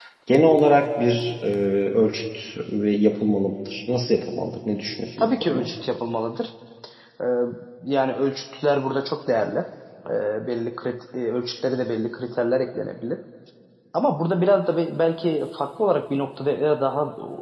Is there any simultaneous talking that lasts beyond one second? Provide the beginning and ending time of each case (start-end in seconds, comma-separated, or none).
none